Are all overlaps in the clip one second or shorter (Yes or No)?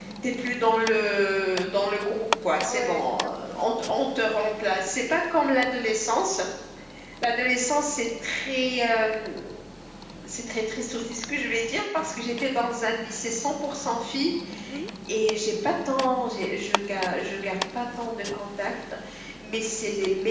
No